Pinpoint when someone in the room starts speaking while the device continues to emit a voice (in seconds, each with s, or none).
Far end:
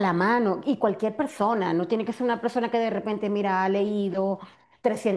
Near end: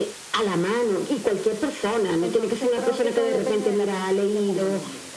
2.2 s